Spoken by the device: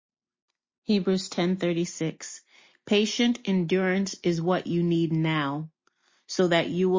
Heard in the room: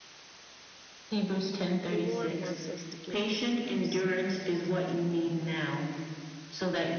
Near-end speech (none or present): present